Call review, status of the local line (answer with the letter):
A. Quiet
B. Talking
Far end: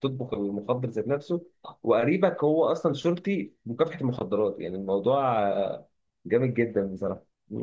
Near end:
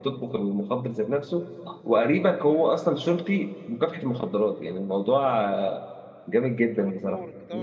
B